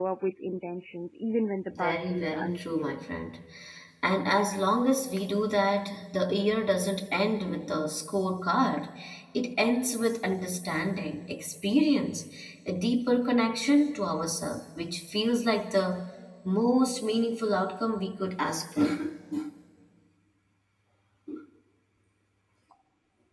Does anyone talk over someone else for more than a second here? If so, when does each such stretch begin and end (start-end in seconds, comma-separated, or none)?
1.7-3.0